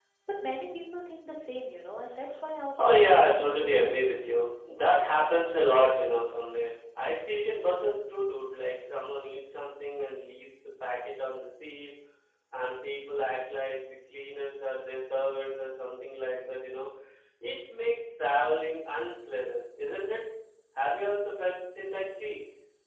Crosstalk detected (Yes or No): Yes